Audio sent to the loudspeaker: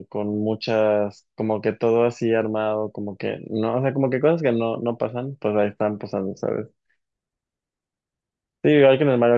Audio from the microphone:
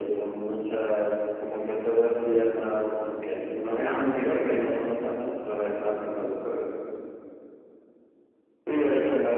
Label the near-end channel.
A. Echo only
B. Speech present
B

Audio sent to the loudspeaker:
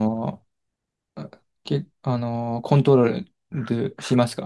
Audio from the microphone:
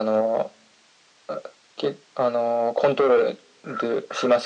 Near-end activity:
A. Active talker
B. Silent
B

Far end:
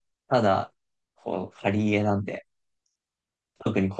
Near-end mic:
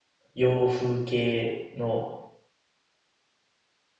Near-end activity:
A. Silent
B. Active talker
B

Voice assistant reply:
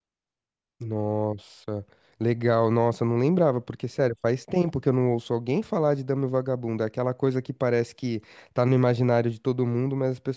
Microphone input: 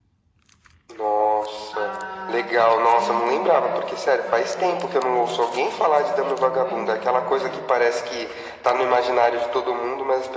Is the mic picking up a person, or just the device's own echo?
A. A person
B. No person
A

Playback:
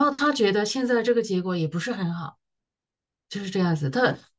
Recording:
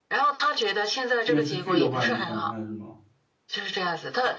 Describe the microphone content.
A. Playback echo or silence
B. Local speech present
B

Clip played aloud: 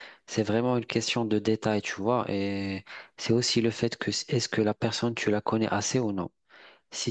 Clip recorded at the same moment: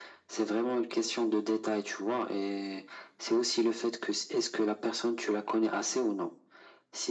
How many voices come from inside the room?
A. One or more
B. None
B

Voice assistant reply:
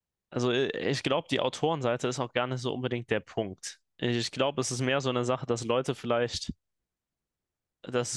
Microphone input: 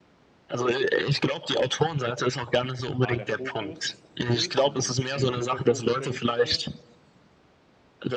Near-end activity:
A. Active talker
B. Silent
A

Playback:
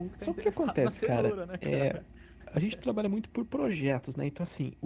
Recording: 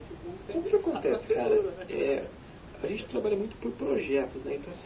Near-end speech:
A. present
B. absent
B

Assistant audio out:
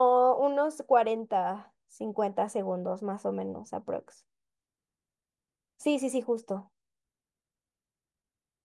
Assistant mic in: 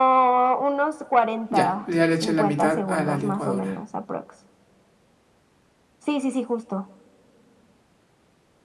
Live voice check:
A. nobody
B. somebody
B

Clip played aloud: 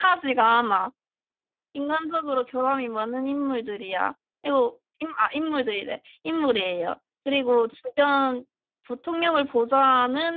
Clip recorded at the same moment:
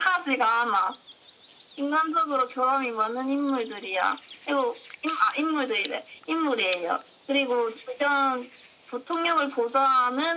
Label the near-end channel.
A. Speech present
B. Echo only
B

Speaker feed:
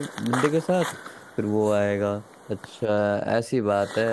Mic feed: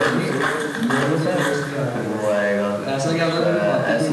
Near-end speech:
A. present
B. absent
A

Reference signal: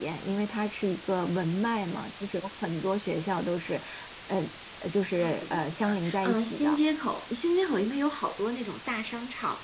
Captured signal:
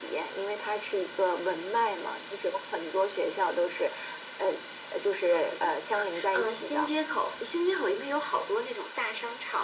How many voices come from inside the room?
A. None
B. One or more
A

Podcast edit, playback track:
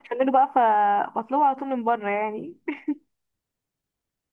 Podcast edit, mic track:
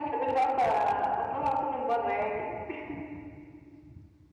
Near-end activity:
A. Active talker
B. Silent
B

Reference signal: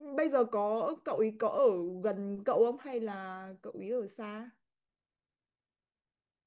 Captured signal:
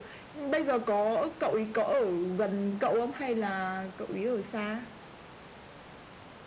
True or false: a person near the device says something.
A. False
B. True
A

